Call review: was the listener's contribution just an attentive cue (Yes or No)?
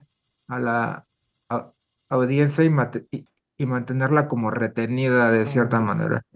No